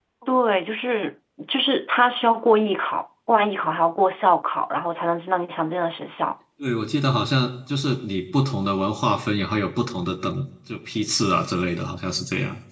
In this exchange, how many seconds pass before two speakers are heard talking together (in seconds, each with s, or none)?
none